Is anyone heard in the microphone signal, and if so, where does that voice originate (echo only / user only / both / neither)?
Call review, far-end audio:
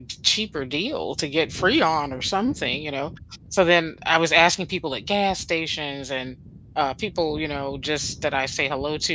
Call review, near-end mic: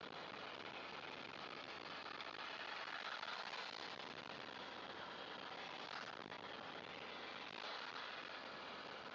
neither